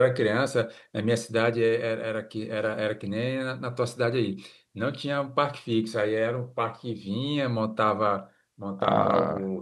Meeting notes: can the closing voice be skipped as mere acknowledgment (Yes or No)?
Yes